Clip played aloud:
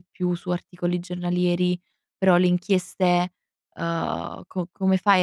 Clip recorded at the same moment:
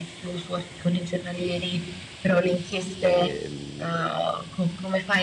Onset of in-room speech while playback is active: 3.0 s

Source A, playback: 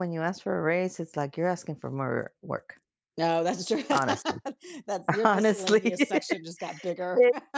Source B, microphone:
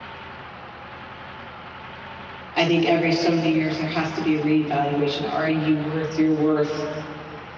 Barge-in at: 2.5 s

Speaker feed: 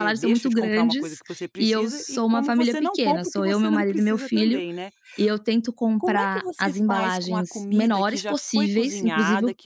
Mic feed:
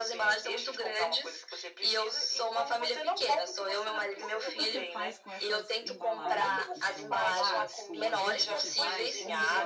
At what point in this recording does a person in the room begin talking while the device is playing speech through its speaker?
4.2 s

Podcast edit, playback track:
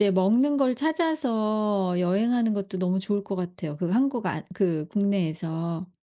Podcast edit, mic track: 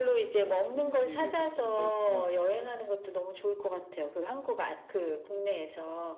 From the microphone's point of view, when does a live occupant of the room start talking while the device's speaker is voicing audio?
0.4 s

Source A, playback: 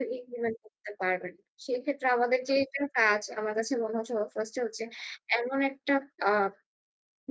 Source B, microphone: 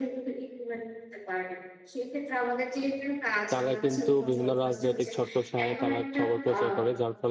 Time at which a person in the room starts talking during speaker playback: 3.5 s

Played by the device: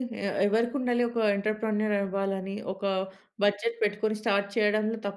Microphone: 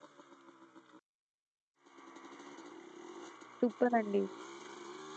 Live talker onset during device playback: 3.6 s

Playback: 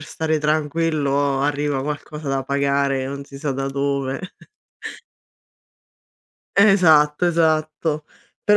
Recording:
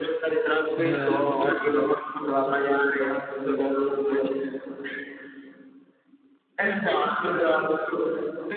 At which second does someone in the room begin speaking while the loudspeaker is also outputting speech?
0.8 s

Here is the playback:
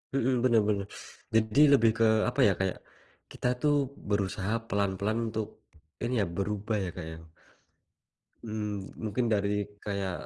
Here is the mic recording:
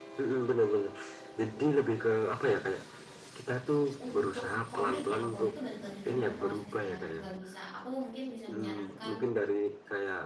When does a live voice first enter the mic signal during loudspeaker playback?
4.0 s

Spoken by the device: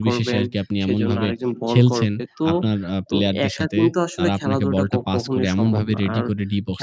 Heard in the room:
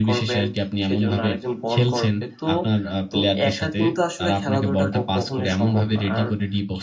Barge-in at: none

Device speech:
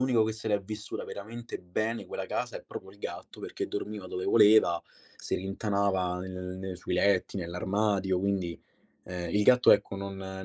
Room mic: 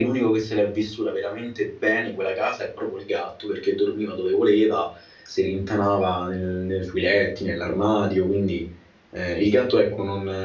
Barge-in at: none

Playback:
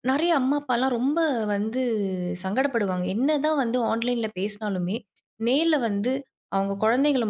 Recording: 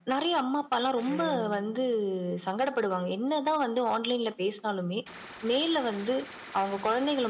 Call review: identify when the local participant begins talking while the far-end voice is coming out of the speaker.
1.0 s

